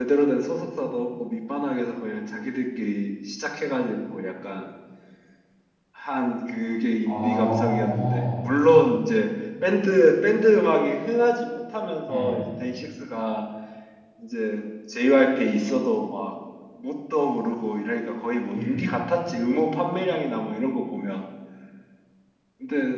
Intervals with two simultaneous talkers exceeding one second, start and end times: 7.1-8.3

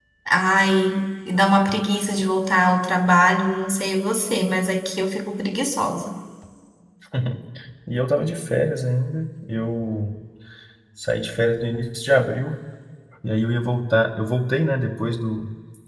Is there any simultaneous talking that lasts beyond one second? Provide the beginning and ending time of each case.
none

